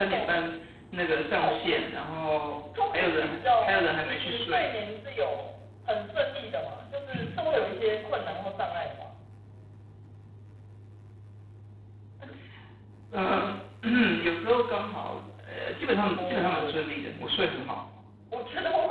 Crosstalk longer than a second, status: present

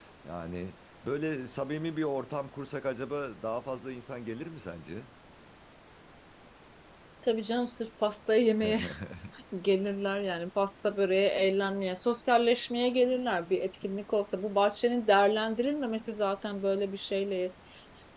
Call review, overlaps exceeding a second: none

